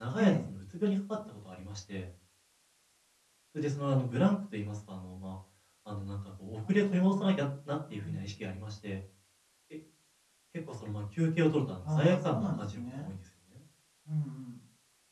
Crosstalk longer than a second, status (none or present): present